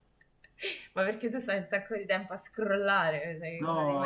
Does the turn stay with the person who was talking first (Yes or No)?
No